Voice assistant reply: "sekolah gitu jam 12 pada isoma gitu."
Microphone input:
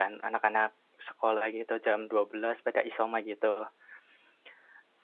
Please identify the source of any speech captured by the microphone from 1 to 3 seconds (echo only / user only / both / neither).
echo only